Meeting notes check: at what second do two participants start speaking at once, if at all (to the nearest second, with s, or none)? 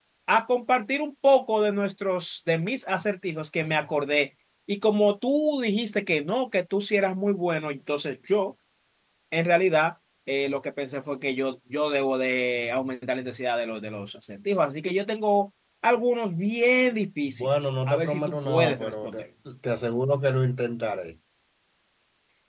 17 s